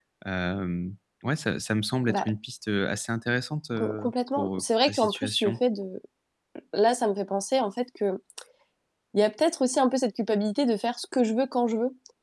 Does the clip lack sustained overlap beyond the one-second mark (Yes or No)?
No